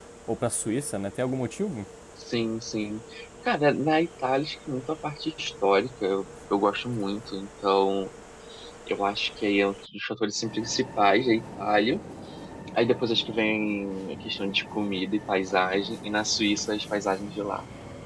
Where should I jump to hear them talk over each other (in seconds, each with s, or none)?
none